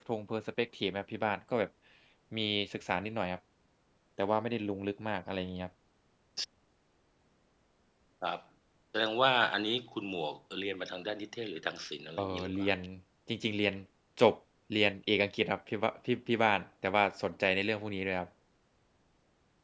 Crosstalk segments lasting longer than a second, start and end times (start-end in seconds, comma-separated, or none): none